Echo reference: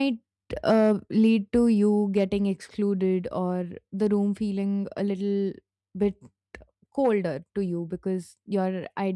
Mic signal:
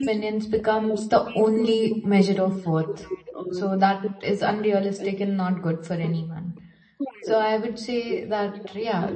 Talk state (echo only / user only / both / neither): both